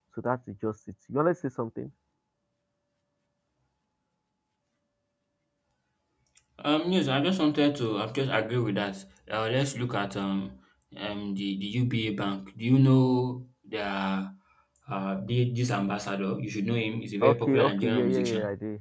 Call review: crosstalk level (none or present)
present